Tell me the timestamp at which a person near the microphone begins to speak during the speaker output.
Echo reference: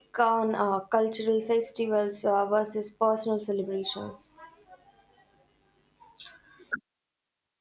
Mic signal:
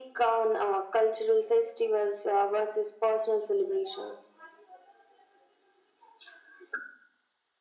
none

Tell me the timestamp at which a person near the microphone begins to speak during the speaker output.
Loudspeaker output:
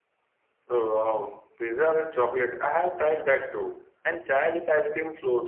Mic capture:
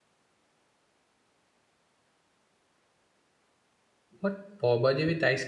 4.2 s

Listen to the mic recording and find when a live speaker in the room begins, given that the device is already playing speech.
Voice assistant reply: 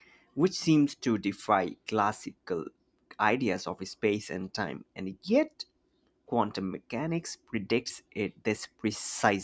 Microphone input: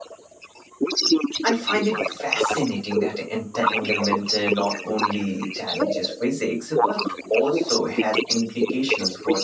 1.4 s

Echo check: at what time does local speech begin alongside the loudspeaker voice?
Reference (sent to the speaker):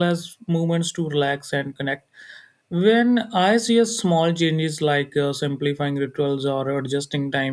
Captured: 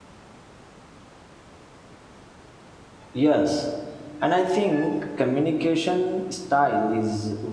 3.1 s

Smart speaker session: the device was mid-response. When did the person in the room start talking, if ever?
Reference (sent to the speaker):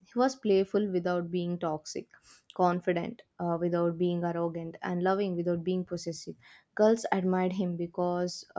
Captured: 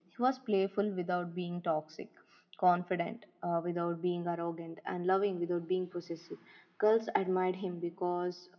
none

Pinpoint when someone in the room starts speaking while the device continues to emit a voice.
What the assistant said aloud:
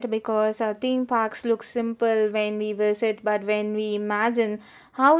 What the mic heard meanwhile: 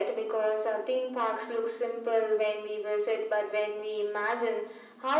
none

